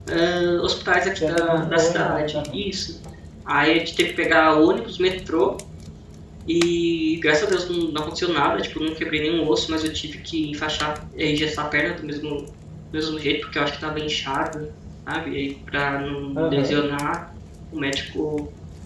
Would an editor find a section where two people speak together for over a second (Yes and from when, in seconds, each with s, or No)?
Yes, from 1.2 s